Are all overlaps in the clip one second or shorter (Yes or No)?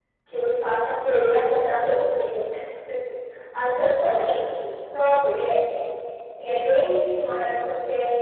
Yes